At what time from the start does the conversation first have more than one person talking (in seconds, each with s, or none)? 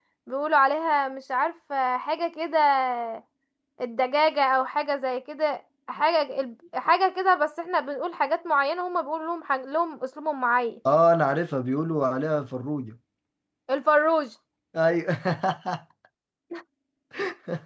none